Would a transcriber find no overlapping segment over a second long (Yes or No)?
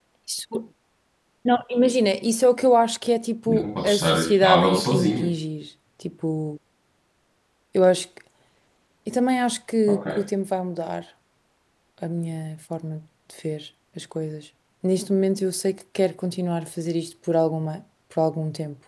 No